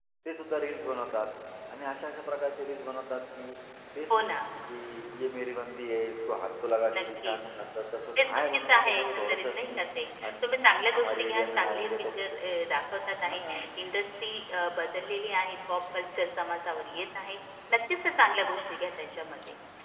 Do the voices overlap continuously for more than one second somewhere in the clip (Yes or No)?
Yes